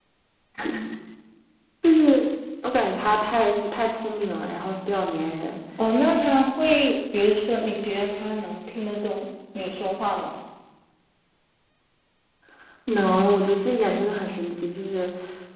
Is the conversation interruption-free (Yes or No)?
Yes